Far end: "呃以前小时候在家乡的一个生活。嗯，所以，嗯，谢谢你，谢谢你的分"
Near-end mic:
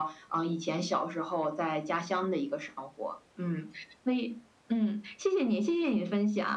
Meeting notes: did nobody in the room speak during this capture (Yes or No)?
Yes